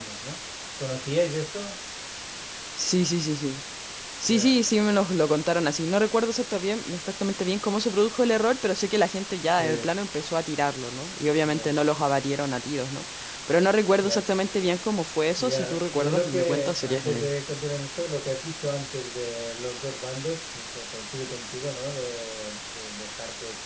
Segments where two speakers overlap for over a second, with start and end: 15.4-17.3

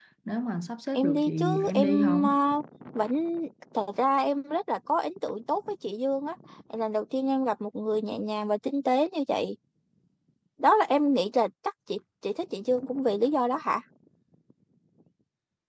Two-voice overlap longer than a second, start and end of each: 0.9-2.3

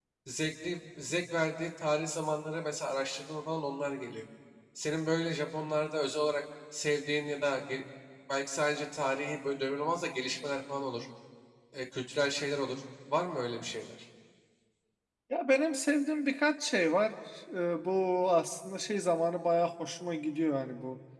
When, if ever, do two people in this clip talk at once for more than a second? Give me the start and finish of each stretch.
none

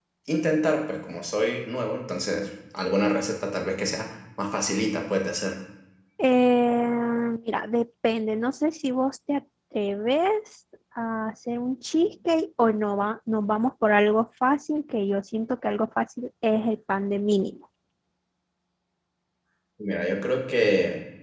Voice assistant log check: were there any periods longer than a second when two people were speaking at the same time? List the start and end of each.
none

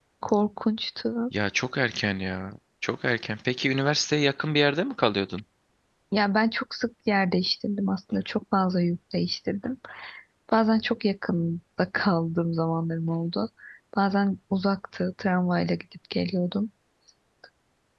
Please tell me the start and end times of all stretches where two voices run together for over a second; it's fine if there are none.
none

